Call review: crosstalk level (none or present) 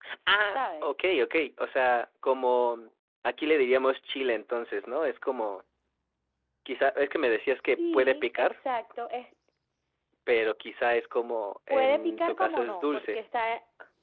present